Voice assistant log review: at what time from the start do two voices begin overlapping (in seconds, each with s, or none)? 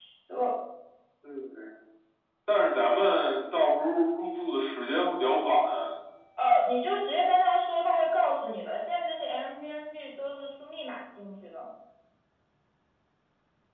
none